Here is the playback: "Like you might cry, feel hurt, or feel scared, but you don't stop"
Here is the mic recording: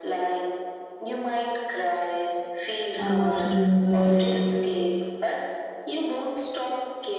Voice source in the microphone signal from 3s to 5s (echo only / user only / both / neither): both